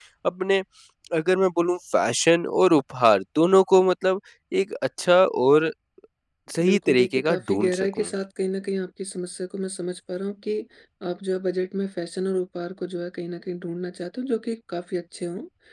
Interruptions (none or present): present